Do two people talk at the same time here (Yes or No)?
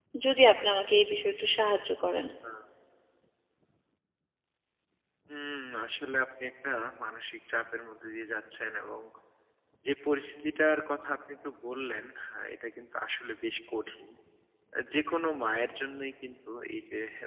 No